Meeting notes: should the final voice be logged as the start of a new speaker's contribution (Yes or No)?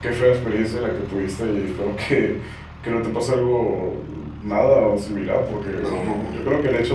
No